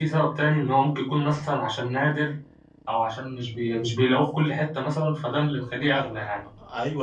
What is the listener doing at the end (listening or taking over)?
taking over